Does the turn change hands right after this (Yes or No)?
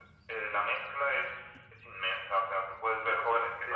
No